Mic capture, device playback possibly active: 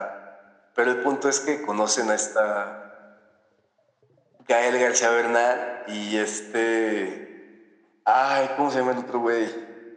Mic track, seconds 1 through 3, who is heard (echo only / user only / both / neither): echo only